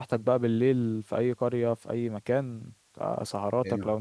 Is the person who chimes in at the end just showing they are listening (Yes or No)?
Yes